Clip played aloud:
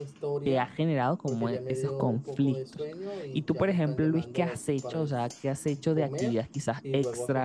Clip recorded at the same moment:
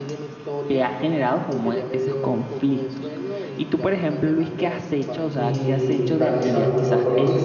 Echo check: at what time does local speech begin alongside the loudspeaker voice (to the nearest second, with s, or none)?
5 s